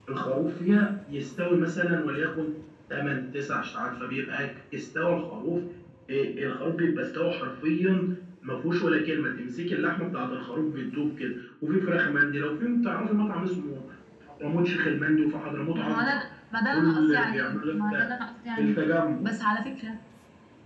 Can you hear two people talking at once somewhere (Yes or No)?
Yes